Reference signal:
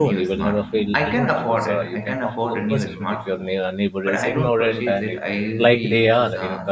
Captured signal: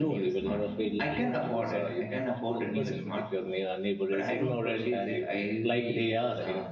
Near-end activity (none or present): none